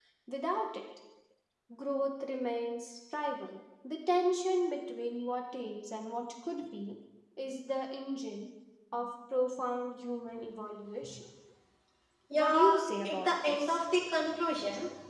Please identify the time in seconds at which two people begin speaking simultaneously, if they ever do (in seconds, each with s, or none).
12.3 s